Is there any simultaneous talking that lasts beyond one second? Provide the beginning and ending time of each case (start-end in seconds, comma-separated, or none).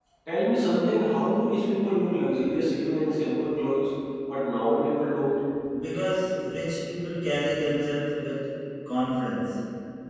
none